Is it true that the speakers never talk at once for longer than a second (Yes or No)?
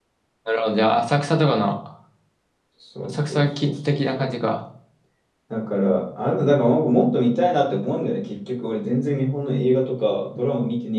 No